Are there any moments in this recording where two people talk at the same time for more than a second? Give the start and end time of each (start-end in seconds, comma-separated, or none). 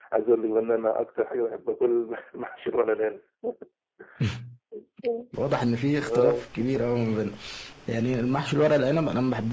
none